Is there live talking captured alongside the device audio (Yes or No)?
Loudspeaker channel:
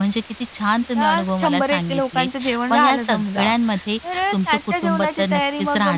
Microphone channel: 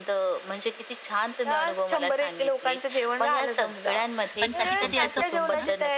Yes